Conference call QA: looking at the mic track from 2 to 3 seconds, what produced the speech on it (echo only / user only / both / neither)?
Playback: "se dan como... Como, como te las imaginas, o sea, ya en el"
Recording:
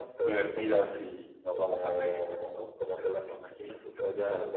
both